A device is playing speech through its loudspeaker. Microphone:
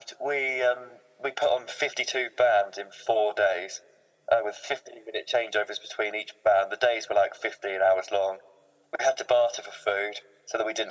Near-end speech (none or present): none